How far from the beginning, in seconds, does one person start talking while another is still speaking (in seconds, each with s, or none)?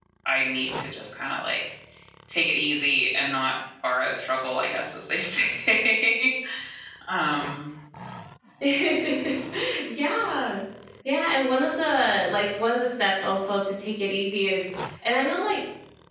none